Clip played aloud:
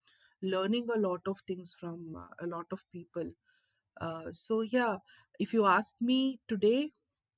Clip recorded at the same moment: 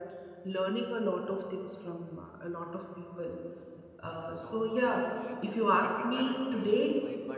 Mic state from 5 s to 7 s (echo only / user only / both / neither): both